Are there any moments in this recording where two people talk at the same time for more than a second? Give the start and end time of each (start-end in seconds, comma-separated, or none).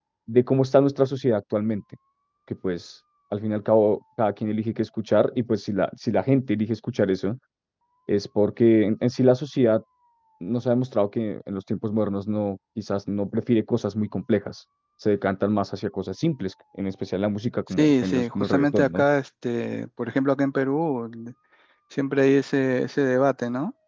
17.7-19.0